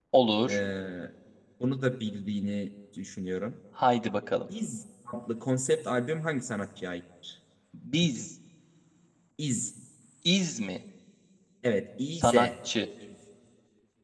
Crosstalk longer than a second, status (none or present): none